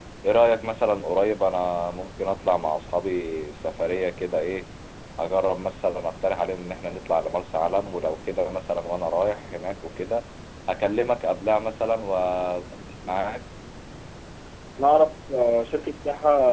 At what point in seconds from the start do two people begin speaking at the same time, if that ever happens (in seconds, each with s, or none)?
none